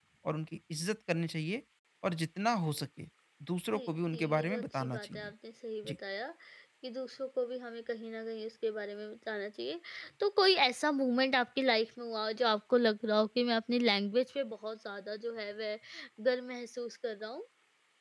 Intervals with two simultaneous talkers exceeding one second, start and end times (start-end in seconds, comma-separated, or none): 3.7-5.3